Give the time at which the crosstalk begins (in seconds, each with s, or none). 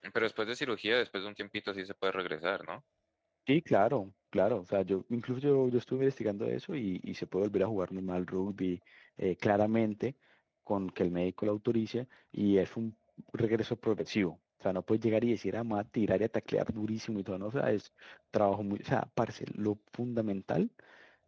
none